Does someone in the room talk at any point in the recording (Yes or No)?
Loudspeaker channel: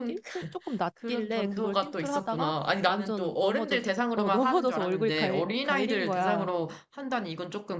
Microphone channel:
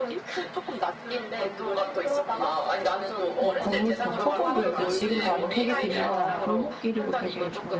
Yes